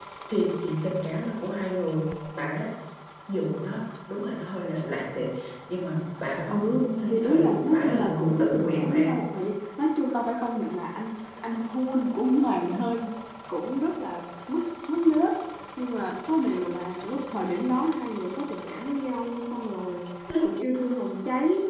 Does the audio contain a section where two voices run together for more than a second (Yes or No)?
Yes